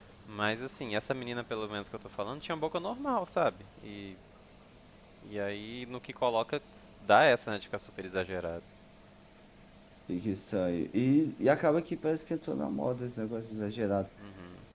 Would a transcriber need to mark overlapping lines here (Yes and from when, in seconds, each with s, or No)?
No